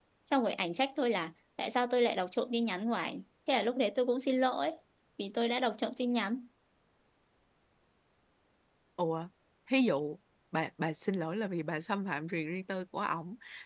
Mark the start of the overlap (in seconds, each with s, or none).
none